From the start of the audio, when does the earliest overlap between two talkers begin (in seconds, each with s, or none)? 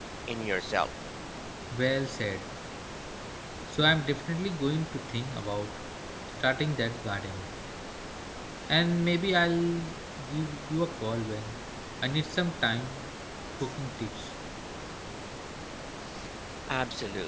none